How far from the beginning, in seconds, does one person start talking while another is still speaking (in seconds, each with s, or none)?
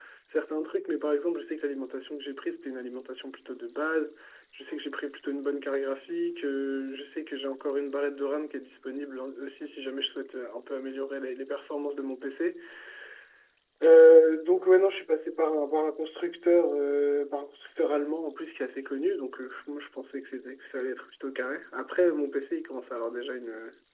none